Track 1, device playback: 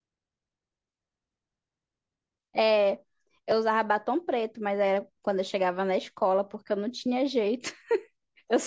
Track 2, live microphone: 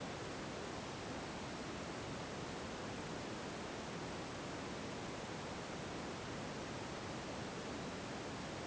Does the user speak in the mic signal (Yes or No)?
No